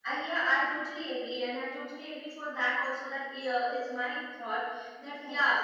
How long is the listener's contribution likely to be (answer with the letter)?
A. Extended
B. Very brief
B